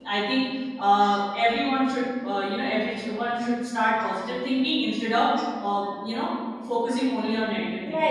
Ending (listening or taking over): taking over